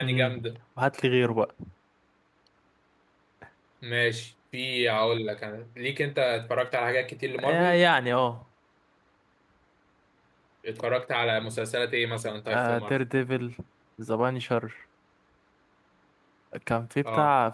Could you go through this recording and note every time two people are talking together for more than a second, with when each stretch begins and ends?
none

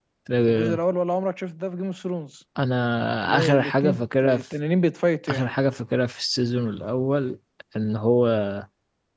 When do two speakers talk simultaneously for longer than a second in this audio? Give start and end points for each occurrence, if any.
3.2-4.4

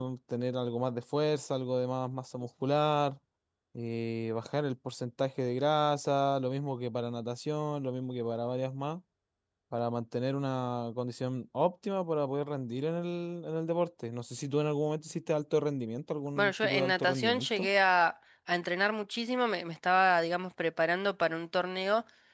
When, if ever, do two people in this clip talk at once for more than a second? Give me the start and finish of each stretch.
16.4-17.7

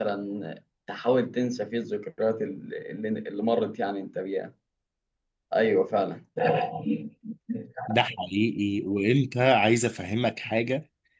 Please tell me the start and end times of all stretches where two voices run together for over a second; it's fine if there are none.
none

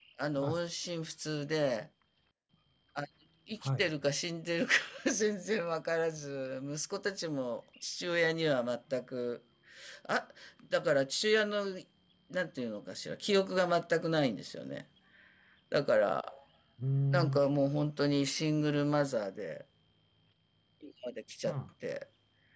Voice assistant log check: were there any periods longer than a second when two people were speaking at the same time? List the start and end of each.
none

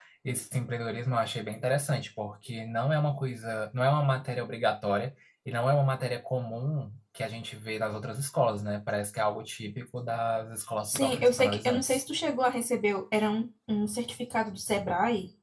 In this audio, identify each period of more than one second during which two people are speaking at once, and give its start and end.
10.8-12.1

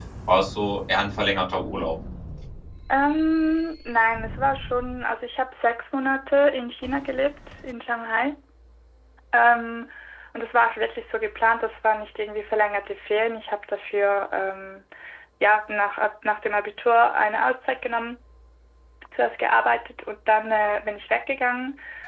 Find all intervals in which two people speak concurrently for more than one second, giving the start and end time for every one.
none

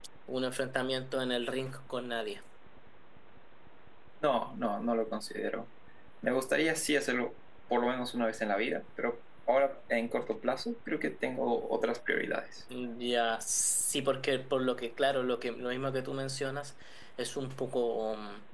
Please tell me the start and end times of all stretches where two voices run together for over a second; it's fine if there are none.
none

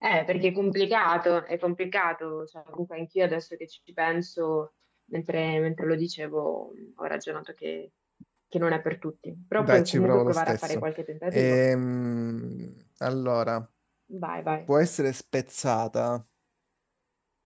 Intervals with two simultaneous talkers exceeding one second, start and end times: 9.6-10.8

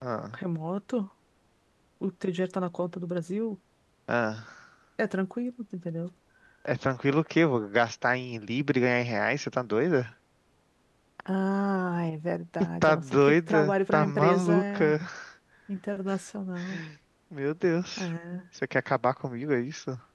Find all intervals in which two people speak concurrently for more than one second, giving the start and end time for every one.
12.8-14.9

